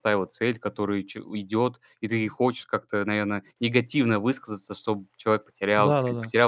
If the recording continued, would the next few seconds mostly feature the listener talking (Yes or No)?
Yes